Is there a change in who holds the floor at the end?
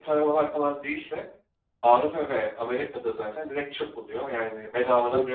Yes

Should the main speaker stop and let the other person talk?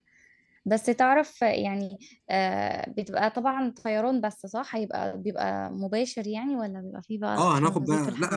Yes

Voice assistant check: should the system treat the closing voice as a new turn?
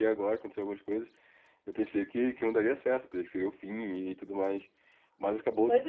Yes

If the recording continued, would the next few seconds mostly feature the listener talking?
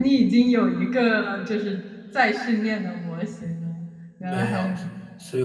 Yes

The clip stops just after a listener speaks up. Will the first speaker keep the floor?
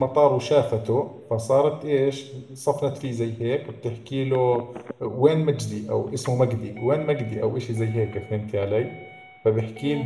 Yes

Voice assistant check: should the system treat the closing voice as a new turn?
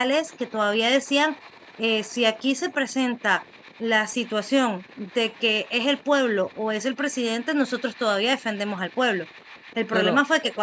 No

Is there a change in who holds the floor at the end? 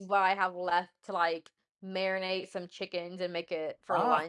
Yes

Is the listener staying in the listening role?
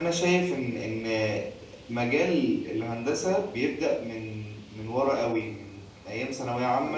Yes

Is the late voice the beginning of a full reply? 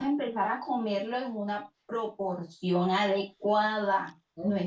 No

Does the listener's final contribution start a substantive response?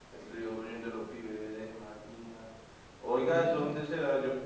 No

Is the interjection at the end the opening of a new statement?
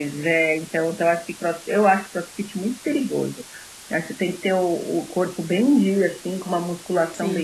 No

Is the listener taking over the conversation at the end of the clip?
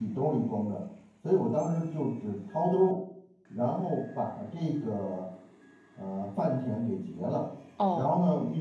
No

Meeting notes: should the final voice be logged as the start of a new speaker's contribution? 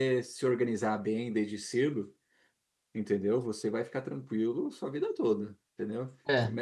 No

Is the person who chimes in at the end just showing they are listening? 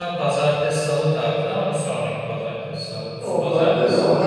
No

